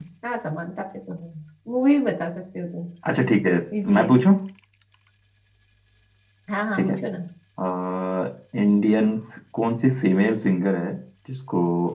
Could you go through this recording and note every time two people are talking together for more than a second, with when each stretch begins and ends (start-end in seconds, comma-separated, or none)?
none